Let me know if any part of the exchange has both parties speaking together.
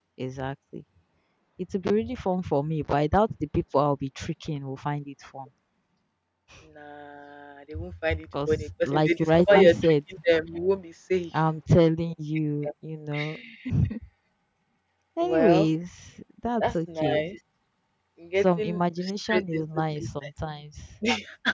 Yes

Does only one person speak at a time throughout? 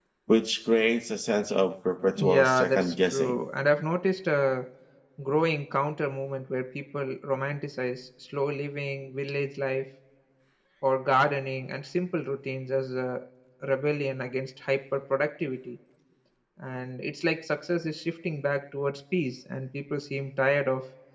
No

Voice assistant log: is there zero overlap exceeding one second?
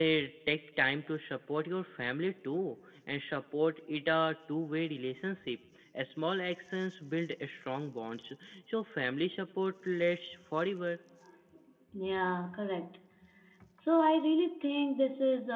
Yes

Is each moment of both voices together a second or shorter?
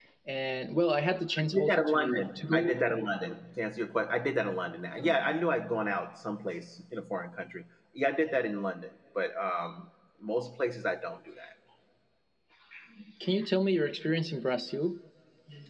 No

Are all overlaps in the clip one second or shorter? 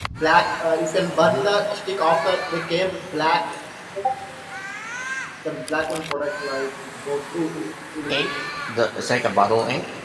Yes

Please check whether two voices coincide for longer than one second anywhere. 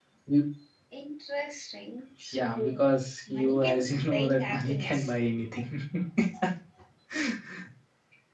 Yes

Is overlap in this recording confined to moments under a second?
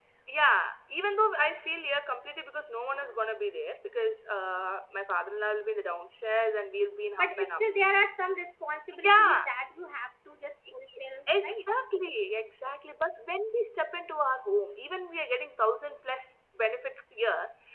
Yes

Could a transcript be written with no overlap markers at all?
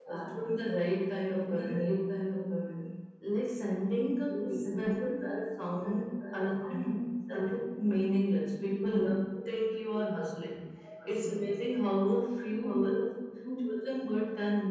No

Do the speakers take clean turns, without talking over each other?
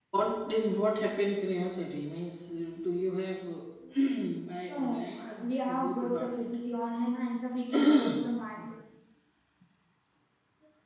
No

